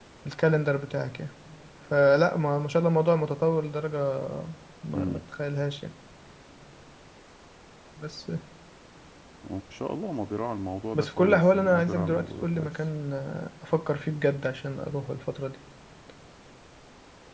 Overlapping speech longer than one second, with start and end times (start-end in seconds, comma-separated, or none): 10.9-12.7